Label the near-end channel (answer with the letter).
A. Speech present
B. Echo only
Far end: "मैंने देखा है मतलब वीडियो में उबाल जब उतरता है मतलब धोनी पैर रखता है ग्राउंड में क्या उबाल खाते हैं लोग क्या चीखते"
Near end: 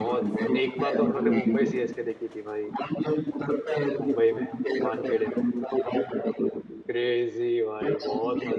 A